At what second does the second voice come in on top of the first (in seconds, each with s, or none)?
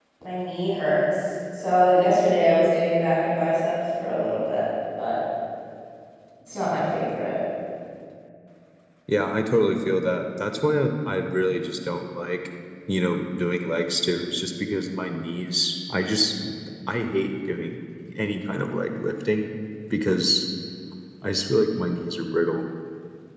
none